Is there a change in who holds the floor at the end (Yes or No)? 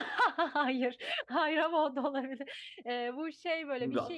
No